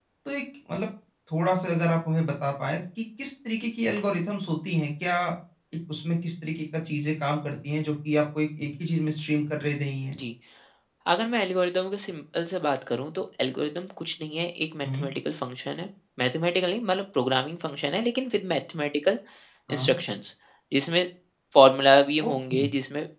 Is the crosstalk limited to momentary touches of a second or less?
Yes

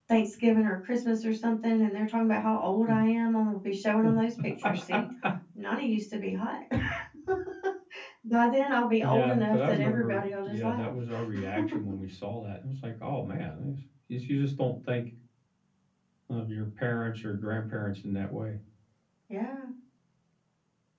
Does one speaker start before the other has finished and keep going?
Yes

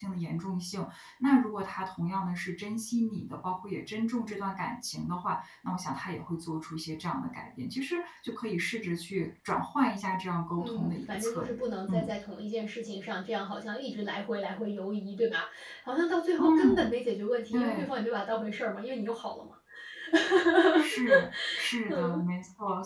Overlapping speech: Yes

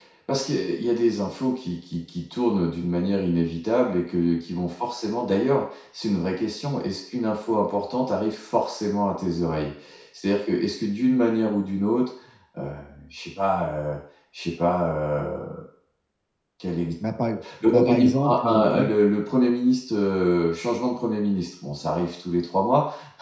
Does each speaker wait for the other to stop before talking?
No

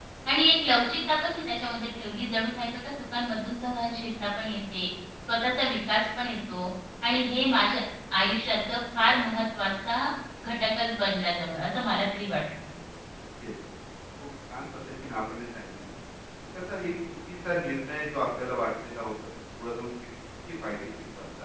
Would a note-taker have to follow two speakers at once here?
No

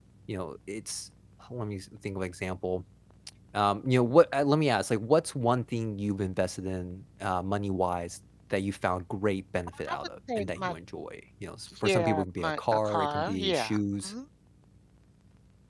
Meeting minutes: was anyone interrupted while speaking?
Yes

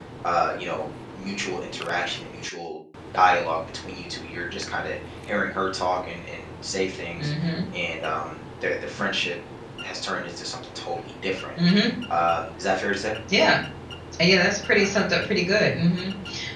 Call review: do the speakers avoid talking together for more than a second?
Yes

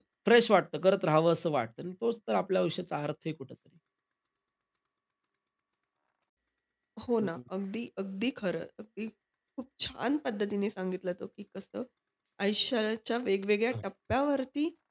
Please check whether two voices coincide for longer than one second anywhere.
No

